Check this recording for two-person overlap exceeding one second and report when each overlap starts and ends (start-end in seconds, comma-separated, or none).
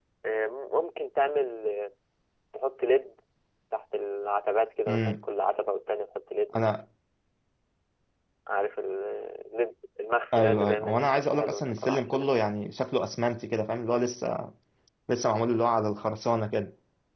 10.3-12.4